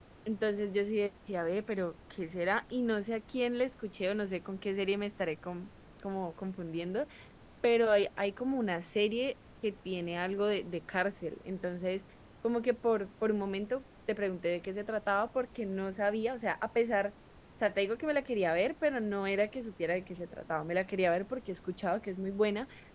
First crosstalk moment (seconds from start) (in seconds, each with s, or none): none